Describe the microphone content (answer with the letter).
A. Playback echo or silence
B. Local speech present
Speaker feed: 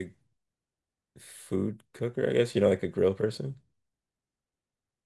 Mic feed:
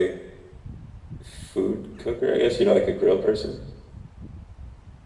A